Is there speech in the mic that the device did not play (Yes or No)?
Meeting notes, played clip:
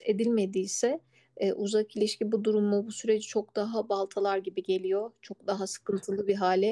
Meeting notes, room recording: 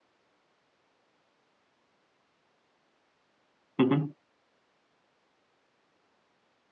Yes